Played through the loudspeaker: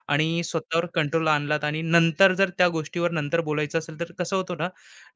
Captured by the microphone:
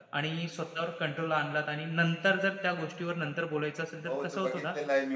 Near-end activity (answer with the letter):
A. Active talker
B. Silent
A